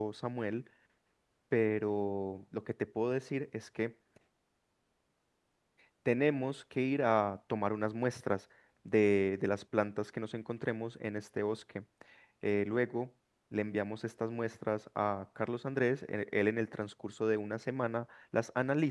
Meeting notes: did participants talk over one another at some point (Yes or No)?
No